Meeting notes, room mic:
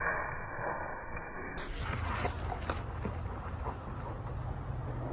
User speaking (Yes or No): No